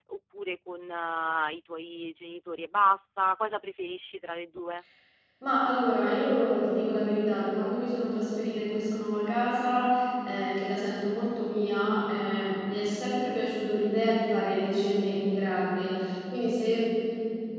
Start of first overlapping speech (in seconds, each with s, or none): none